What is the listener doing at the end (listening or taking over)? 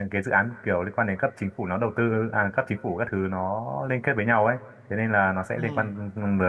listening